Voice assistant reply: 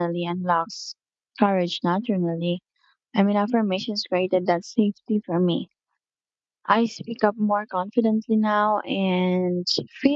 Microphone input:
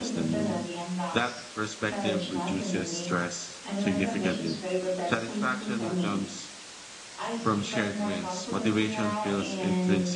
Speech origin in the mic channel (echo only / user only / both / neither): both